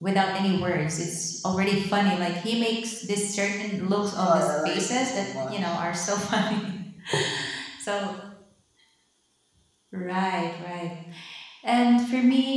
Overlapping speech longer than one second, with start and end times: 4.0-5.8

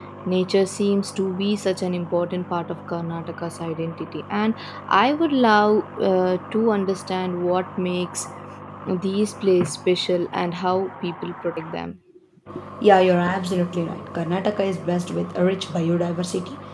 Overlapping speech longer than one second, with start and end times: none

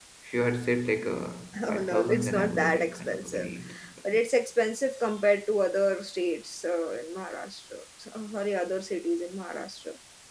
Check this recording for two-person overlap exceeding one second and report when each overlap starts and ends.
1.7-3.5

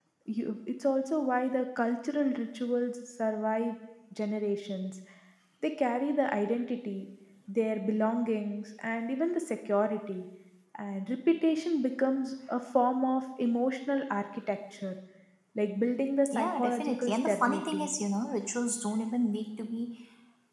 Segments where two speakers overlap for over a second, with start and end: 16.3-17.9

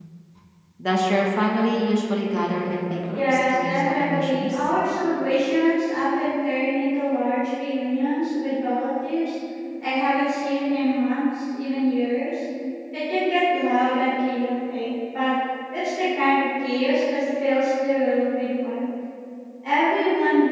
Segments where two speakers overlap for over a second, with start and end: 3.2-4.7

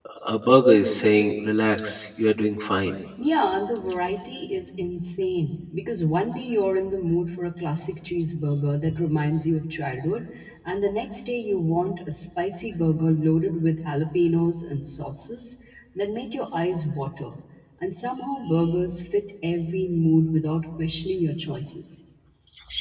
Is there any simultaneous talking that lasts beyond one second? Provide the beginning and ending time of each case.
none

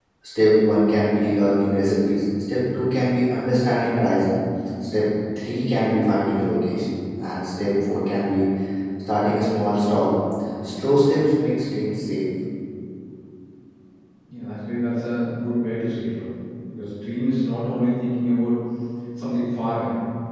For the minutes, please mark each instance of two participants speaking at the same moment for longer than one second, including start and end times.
none

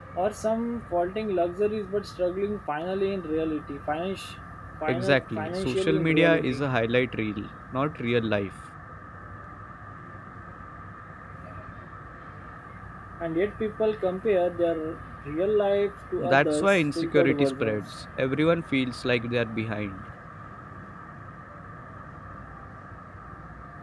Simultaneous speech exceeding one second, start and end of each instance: 4.9-6.6, 16.2-17.8

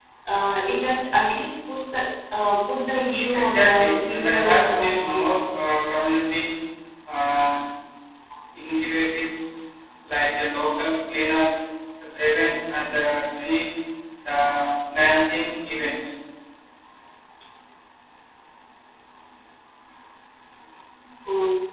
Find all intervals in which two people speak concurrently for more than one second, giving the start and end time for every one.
3.3-5.4

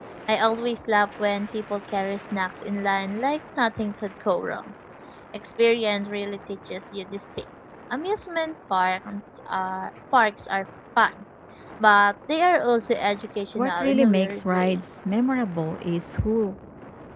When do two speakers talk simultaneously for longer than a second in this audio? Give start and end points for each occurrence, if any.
13.6-14.8

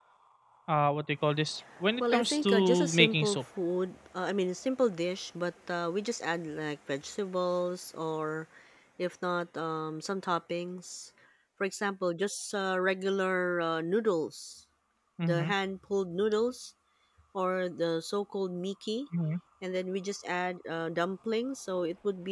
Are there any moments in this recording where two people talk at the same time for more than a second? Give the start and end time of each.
2.0-3.4

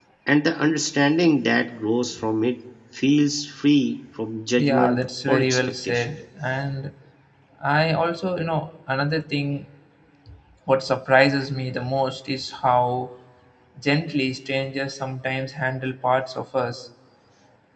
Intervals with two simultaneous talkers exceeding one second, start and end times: 4.6-6.2

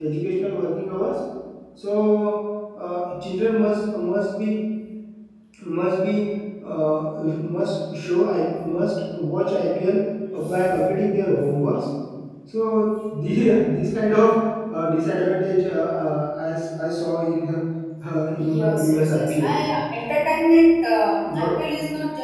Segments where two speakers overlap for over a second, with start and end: 18.4-19.6

